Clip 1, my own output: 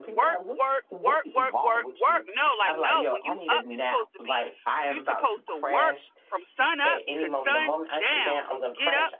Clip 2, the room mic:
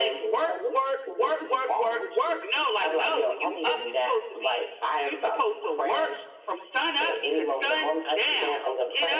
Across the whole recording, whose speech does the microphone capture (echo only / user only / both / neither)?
echo only